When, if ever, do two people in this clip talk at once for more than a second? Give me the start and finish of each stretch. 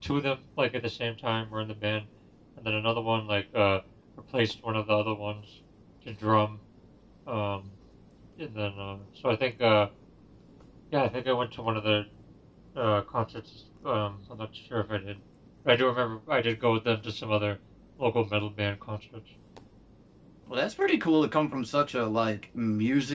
none

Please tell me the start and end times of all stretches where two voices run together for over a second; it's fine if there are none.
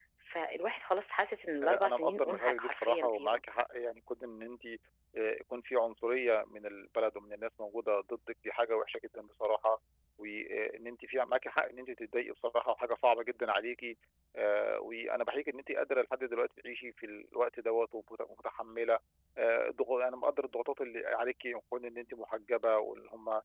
1.6-3.4

